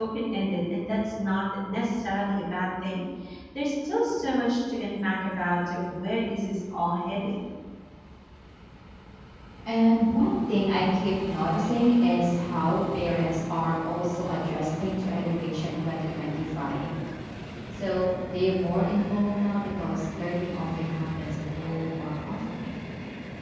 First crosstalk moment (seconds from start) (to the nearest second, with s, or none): none